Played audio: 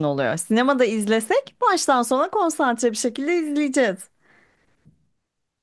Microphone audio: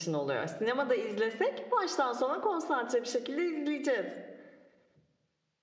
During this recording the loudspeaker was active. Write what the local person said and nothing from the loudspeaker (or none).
none